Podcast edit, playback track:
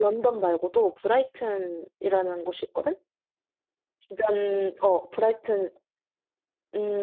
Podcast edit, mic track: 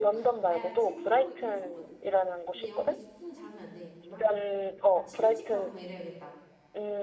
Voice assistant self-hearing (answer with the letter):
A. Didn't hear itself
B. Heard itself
B